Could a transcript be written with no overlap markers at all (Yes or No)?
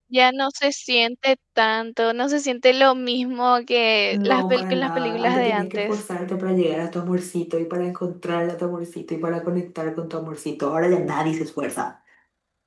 No